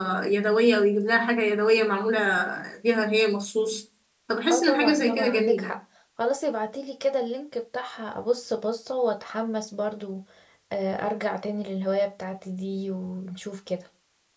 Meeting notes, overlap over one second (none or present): present